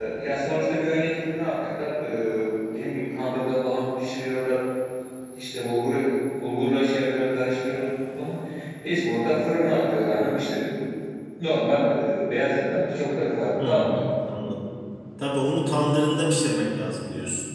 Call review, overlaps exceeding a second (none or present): none